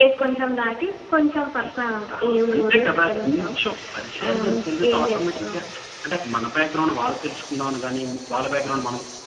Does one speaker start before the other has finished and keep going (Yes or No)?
Yes